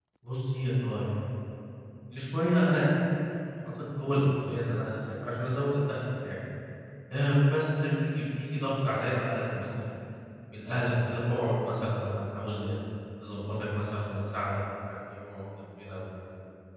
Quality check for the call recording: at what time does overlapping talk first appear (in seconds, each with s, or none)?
none